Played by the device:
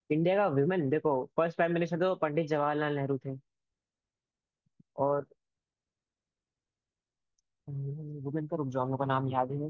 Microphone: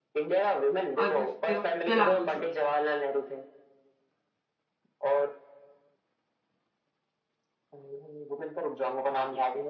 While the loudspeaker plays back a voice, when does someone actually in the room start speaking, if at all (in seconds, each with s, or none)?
1.0 s